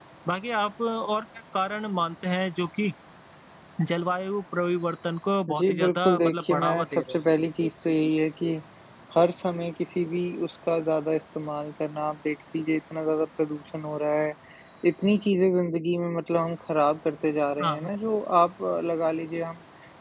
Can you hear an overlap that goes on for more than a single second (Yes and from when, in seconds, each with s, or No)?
Yes, from 5.5 s